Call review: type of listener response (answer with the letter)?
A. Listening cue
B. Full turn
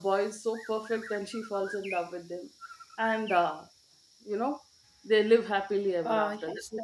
B